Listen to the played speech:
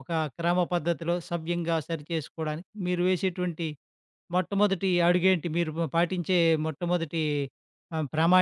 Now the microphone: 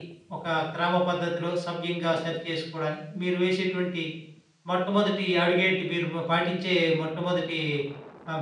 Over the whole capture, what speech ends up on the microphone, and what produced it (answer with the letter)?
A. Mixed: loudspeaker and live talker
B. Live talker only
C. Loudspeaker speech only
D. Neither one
C